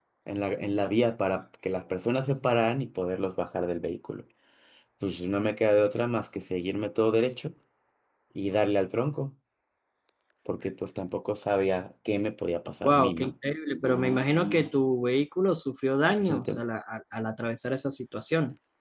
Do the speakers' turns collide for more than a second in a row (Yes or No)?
No